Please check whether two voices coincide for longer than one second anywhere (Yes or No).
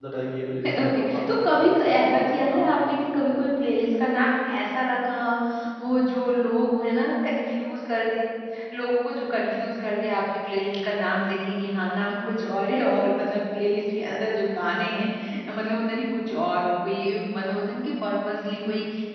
Yes